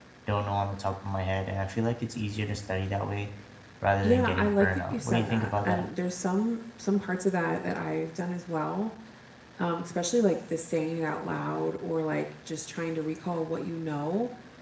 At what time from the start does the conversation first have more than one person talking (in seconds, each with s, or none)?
4.0 s